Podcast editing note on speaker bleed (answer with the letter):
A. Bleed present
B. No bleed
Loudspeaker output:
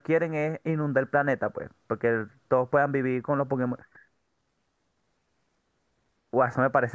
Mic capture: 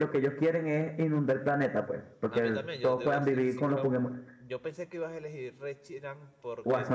A